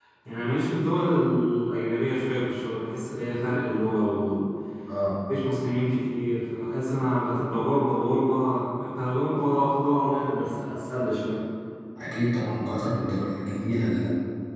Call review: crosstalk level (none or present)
none